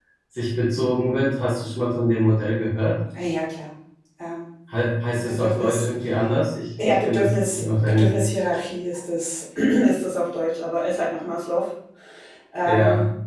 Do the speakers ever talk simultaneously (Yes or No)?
Yes